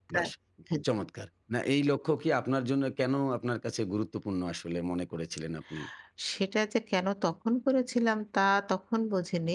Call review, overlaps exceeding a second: none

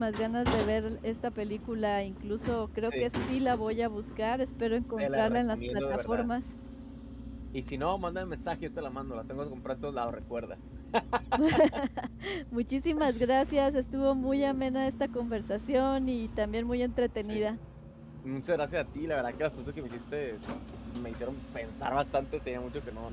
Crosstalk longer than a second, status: present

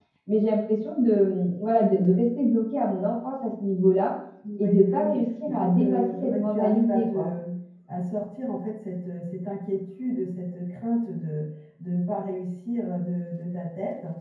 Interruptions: present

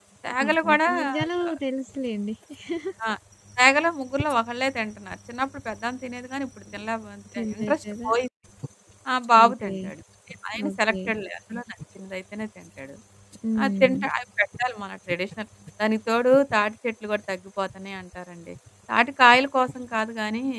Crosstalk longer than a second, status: present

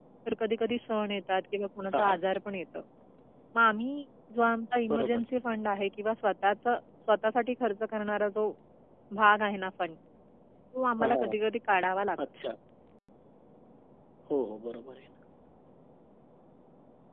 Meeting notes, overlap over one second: none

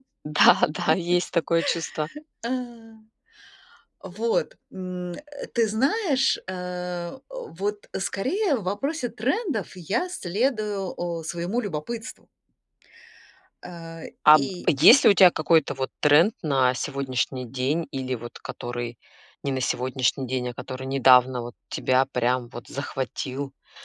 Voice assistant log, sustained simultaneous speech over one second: none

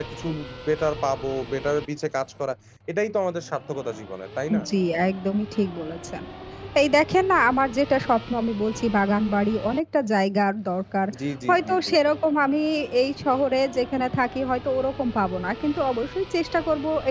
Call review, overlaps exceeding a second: none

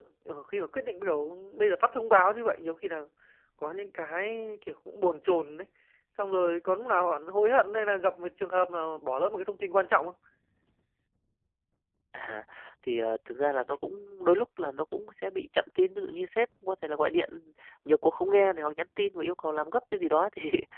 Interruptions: none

